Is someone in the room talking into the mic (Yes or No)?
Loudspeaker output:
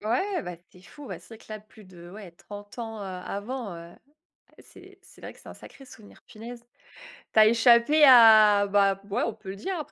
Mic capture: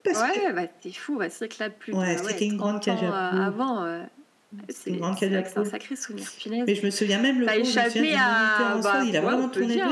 Yes